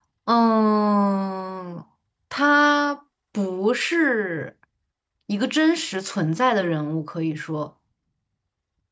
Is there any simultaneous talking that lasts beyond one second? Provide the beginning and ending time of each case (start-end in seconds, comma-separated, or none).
none